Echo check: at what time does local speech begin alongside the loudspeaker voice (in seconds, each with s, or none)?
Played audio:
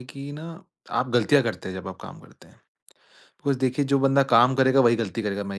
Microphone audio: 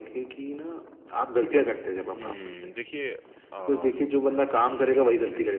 2.0 s